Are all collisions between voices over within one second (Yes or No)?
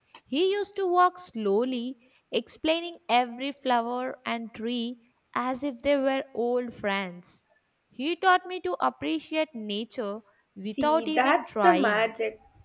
No